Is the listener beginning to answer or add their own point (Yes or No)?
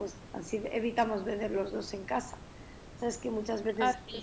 No